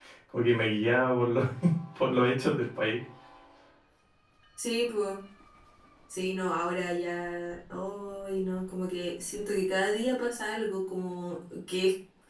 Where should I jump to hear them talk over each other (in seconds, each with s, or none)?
none